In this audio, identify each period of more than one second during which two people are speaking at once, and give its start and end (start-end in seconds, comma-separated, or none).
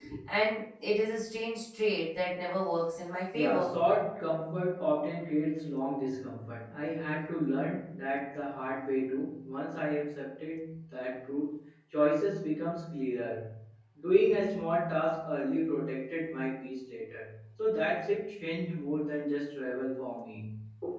none